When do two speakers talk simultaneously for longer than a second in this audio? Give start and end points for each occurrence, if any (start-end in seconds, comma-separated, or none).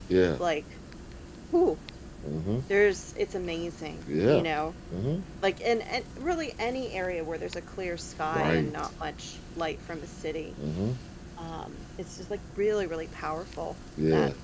none